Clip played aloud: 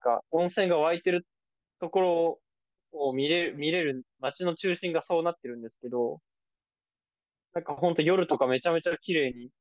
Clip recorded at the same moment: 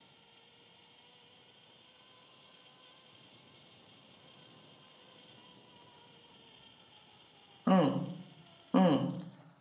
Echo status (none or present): none